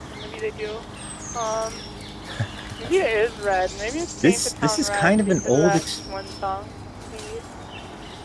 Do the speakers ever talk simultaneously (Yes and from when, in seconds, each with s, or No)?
Yes, from 4.2 s